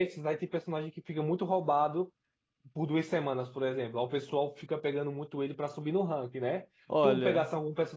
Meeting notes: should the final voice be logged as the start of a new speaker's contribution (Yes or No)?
No